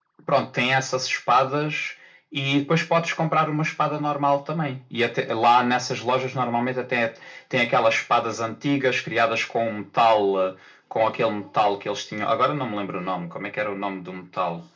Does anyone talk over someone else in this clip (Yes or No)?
No